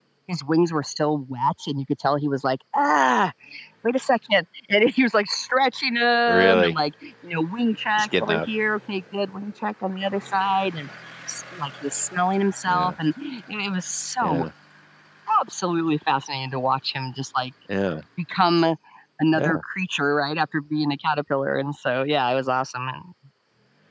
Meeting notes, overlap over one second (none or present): none